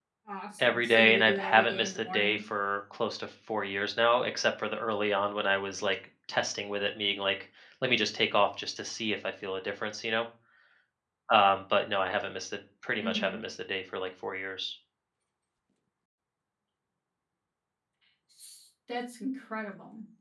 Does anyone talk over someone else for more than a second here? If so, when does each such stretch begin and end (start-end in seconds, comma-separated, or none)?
0.6-2.4